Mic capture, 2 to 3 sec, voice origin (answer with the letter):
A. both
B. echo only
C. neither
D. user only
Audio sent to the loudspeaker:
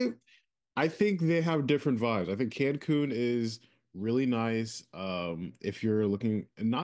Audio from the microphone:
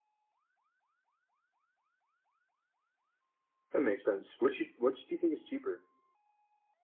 C